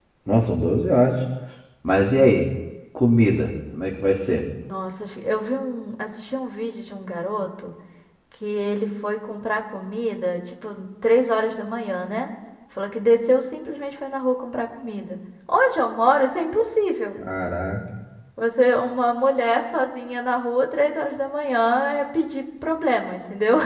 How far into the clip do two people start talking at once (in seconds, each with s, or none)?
none